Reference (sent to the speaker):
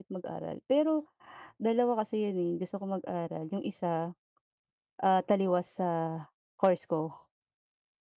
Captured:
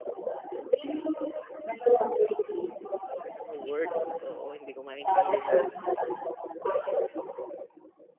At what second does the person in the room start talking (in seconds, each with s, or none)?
3.4 s